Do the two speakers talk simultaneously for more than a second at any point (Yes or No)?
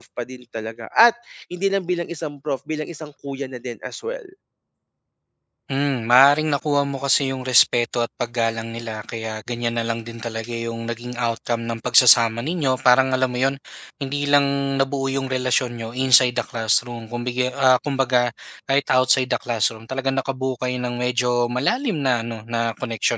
No